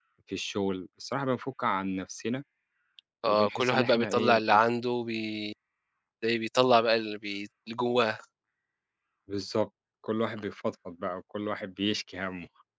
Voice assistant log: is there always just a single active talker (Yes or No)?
No